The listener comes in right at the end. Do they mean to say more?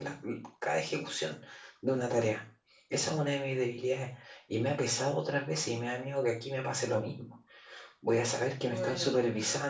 No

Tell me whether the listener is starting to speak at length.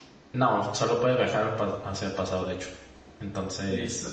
Yes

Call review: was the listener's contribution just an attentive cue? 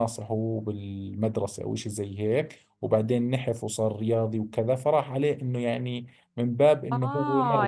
No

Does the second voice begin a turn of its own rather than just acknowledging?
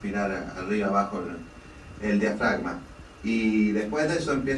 No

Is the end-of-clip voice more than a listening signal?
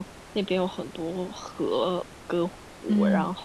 No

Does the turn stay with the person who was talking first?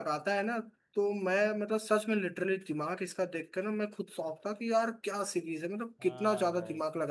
No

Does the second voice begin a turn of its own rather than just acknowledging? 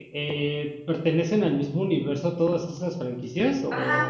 Yes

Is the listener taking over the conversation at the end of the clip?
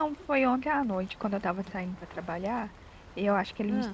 No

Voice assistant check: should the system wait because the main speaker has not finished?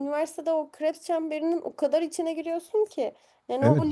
No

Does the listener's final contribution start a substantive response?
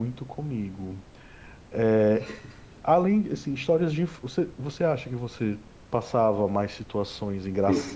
No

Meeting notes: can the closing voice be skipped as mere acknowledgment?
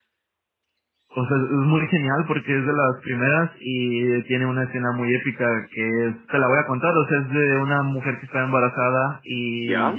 Yes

